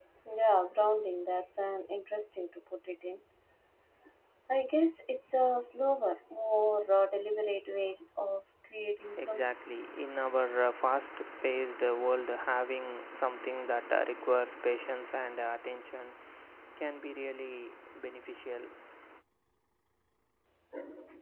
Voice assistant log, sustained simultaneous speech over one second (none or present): none